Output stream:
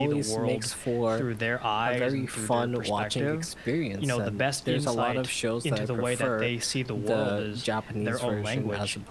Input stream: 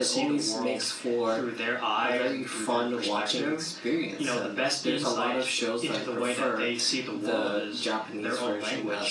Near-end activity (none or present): none